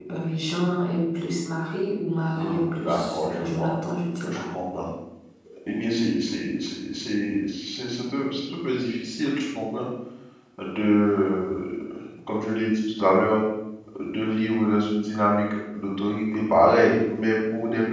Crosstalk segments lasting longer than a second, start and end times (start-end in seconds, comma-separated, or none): 2.4-3.7